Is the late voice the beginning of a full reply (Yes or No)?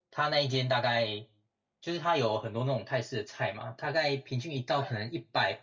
No